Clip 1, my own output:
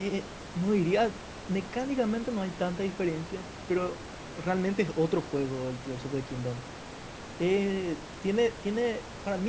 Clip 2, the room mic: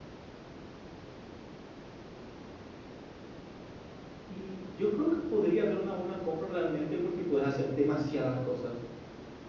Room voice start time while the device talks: 4.2 s

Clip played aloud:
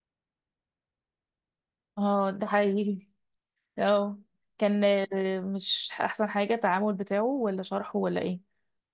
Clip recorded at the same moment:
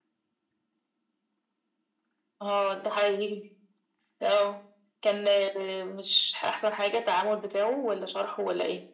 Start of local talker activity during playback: none

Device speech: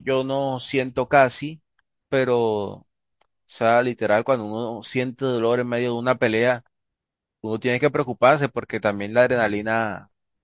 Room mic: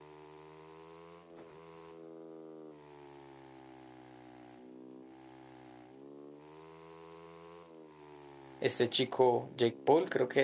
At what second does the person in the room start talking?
8.6 s

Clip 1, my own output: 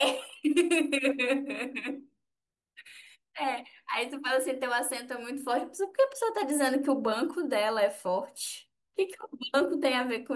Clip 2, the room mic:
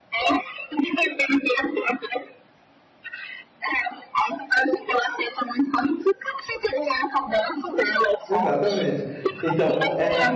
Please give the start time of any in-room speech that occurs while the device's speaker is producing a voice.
8.3 s

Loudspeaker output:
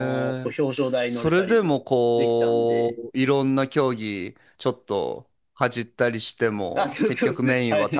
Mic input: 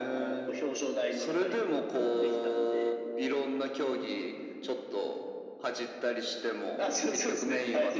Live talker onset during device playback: none

